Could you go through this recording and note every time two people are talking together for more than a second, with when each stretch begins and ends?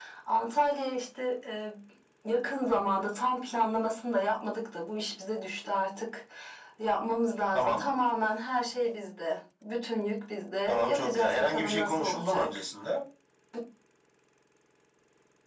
10.7-12.6

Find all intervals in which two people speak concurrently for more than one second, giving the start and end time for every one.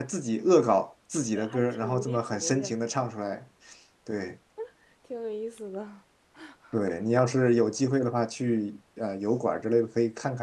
1.4-2.9

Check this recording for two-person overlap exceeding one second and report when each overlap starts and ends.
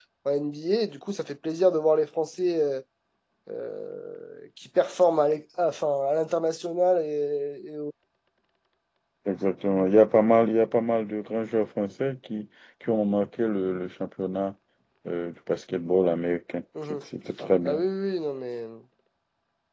none

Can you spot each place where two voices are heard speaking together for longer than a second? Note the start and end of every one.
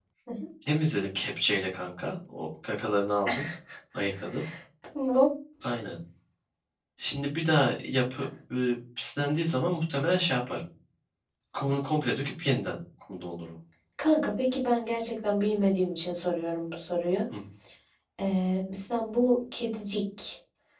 none

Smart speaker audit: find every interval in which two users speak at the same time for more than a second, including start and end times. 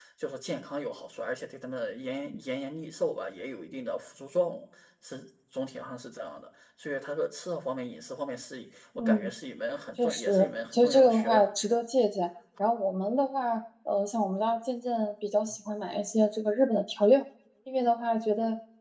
10.0-11.4

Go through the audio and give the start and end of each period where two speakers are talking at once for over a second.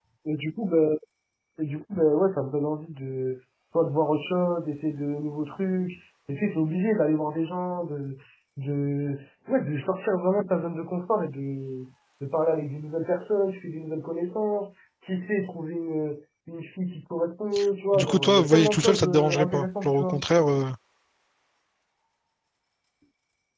17.9-20.2

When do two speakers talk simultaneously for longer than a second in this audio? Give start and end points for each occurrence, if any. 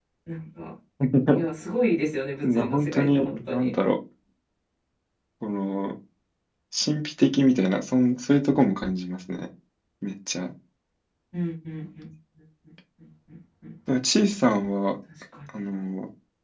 2.4-3.7

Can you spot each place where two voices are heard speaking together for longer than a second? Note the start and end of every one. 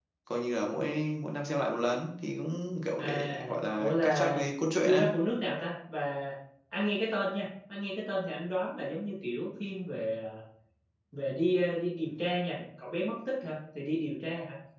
3.0-4.4

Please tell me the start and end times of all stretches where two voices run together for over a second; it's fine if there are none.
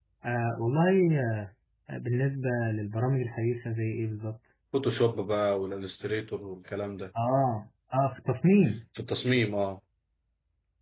none

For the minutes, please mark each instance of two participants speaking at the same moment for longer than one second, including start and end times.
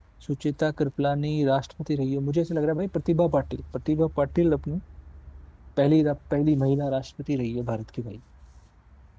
none

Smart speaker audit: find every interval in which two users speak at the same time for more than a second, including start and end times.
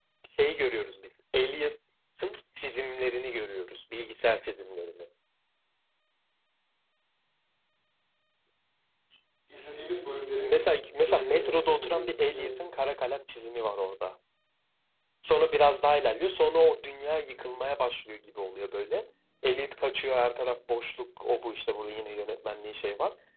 10.4-12.5

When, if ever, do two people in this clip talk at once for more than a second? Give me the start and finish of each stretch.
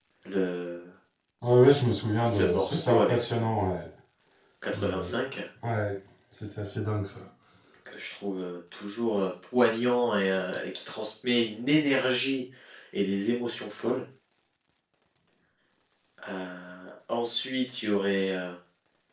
2.2-3.5

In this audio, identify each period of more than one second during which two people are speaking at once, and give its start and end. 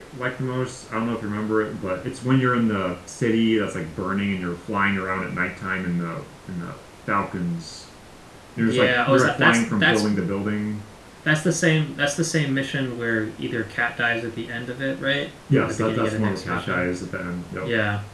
8.6-10.1, 15.5-16.9

